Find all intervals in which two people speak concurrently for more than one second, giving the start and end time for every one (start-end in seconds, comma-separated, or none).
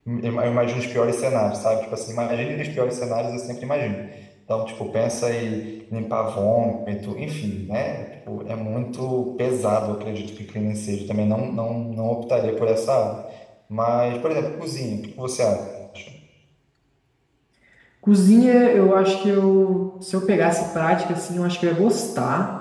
none